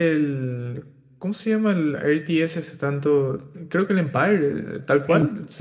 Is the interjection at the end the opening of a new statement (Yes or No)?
Yes